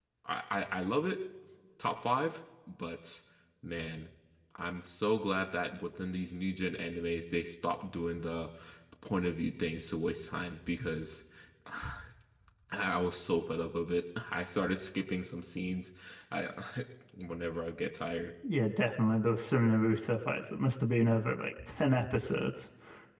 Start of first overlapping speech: none

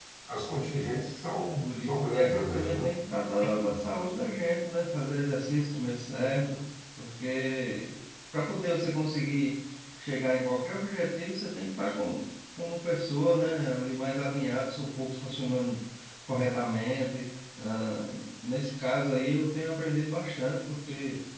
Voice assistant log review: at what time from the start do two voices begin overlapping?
1.6 s

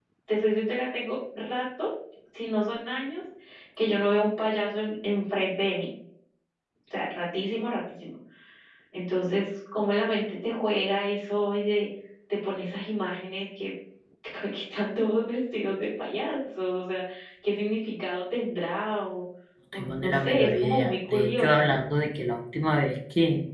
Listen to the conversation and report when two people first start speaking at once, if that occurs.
19.7 s

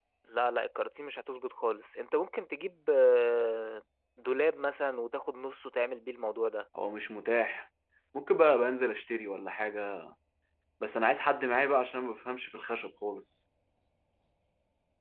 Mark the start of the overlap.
none

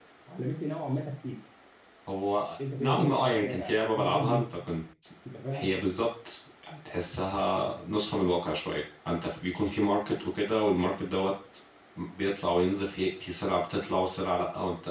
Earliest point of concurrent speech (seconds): 2.8 s

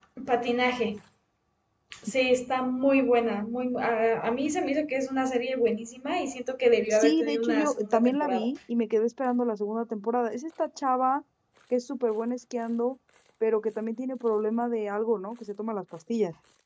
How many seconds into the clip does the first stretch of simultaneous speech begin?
6.9 s

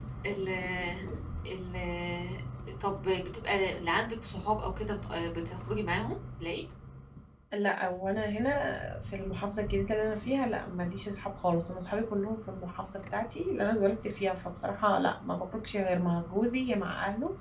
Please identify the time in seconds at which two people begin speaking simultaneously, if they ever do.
none

